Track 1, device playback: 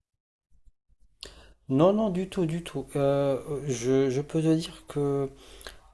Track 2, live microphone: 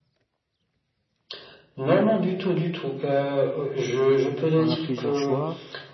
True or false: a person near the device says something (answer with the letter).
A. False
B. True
B